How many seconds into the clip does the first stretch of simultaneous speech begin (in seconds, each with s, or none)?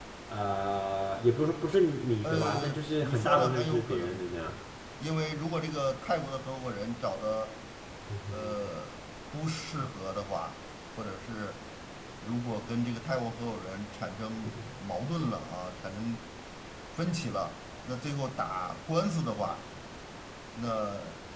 2.2 s